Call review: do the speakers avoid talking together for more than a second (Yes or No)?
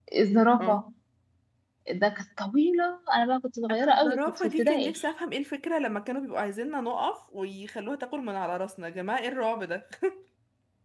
No